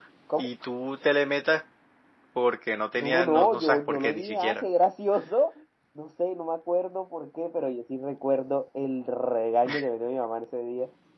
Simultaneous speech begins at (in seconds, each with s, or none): 2.9 s